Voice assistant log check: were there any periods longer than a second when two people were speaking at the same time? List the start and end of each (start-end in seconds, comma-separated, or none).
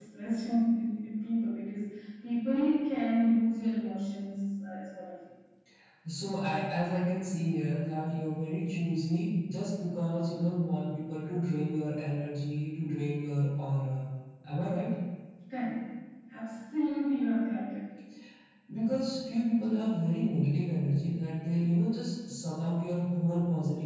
none